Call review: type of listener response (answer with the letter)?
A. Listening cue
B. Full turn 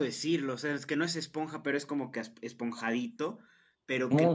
A